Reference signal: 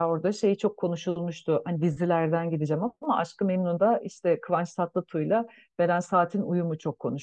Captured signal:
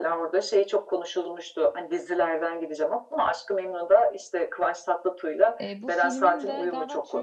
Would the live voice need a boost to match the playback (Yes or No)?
Yes